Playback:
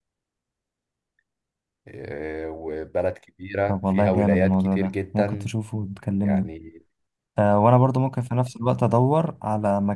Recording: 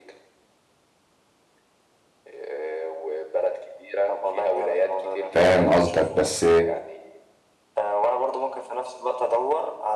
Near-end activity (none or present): present